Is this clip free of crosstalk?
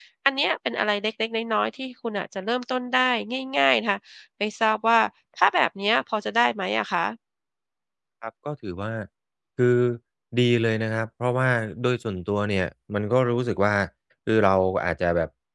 Yes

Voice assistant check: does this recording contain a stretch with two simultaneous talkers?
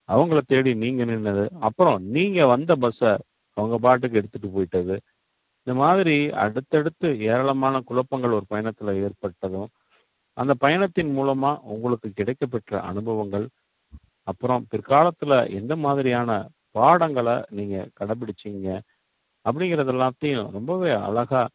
No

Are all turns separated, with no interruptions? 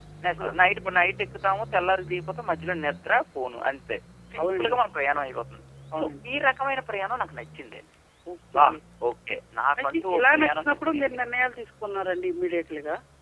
No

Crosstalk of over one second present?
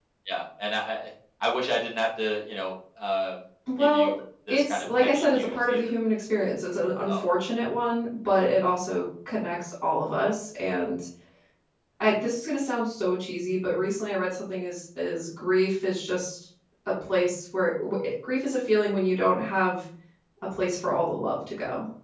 Yes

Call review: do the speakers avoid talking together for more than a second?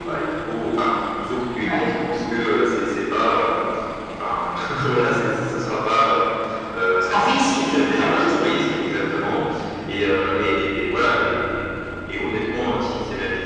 No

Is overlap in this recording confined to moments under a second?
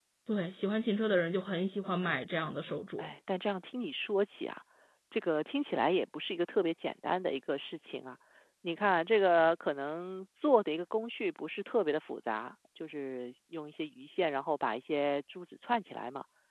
Yes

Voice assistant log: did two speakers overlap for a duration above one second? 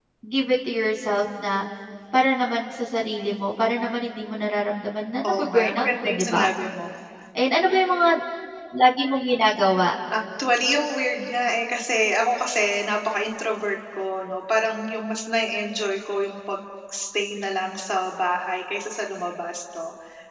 Yes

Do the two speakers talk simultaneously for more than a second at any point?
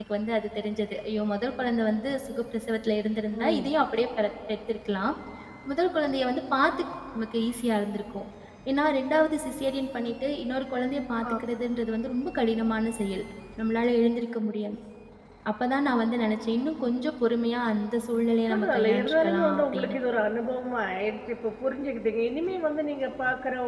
Yes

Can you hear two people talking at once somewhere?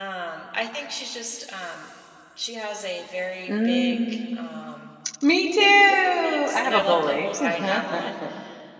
Yes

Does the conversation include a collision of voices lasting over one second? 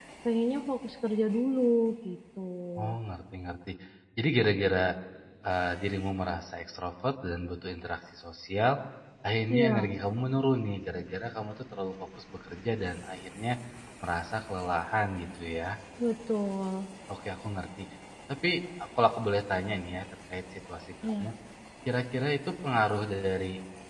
No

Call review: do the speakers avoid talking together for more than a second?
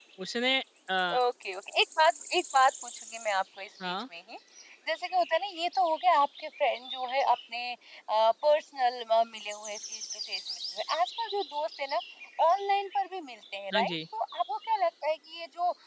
Yes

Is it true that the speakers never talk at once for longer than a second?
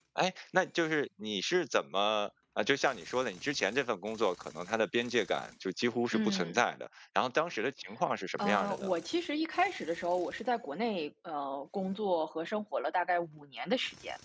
Yes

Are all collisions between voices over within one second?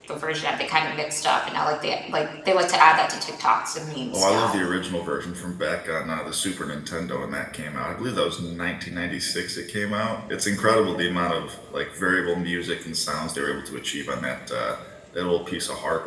Yes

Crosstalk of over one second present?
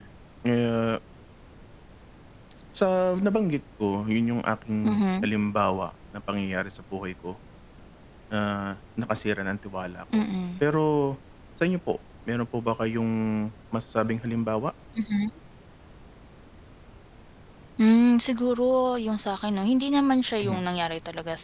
No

